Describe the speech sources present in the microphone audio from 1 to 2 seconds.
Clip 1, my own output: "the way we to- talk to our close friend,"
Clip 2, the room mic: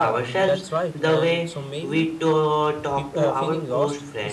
both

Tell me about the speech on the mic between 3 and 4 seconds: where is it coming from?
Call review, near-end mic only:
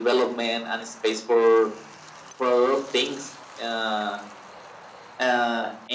echo only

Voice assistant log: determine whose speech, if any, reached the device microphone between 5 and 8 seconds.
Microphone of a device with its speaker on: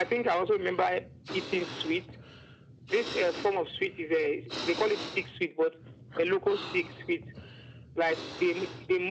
echo only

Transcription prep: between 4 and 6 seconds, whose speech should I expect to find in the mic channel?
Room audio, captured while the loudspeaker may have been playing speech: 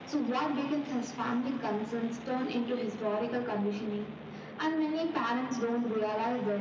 echo only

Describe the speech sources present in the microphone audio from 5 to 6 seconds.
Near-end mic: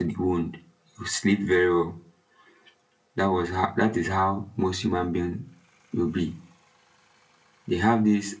user only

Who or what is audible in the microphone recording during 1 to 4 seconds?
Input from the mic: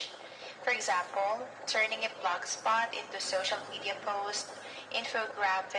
echo only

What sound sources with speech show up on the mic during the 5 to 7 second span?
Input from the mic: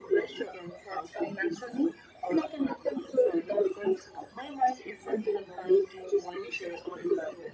echo only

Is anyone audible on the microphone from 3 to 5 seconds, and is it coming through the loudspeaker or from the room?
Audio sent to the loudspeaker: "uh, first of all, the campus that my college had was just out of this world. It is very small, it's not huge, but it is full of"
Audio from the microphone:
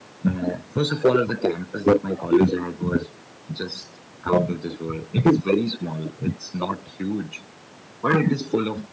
echo only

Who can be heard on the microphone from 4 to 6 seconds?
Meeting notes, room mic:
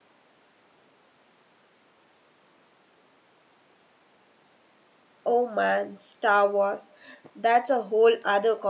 user only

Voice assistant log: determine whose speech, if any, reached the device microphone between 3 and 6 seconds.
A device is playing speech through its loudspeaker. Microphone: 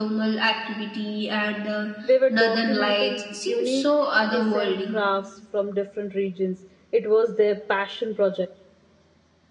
both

